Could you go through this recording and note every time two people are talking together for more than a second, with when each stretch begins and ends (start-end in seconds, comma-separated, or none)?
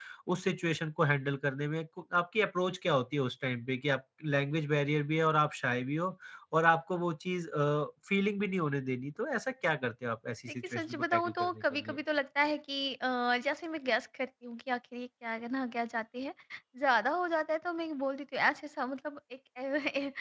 10.5-12.0